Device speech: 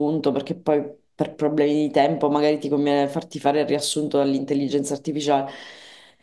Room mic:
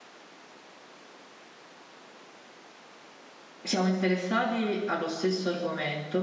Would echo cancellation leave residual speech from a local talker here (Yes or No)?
Yes